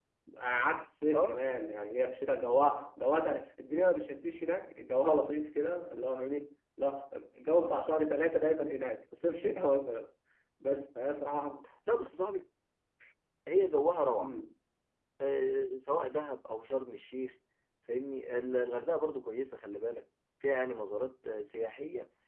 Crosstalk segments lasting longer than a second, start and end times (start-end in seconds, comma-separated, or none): none